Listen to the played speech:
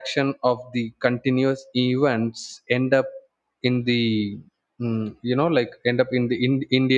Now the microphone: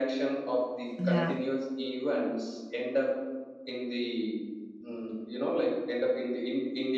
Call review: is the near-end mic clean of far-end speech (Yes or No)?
No